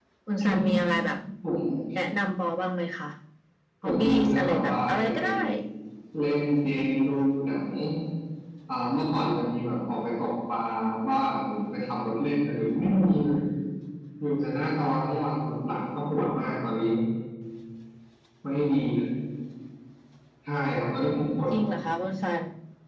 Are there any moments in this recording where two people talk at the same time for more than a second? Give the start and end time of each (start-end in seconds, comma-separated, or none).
3.8-5.3